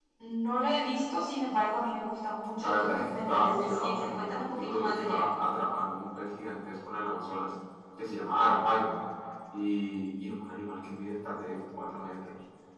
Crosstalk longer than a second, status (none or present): present